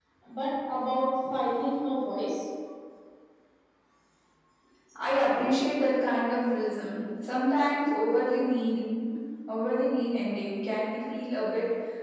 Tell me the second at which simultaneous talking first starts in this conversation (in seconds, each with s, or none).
none